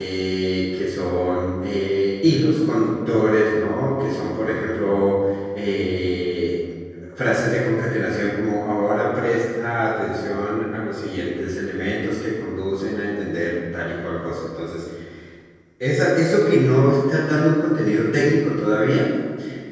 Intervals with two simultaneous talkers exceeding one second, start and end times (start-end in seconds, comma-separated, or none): none